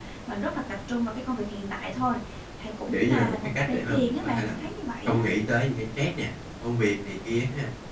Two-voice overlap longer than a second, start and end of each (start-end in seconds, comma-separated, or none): 2.9-4.7